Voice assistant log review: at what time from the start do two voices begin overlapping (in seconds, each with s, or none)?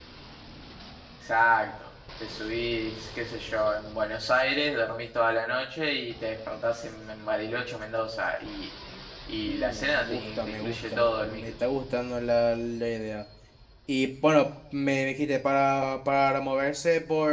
9.4 s